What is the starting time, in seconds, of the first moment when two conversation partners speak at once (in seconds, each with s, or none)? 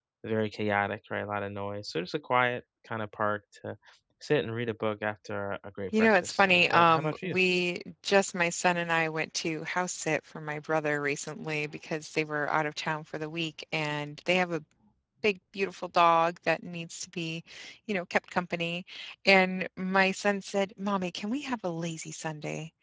5.9 s